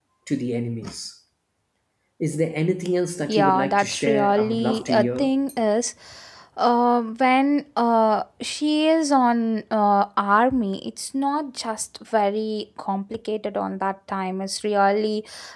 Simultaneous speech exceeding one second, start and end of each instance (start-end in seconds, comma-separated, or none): 3.3-5.3